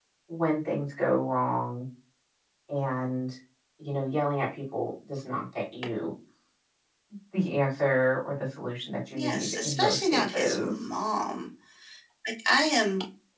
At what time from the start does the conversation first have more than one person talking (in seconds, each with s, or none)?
9.1 s